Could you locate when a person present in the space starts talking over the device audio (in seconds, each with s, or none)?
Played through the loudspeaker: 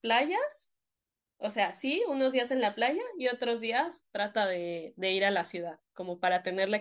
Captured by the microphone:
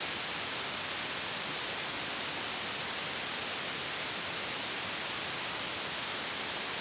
none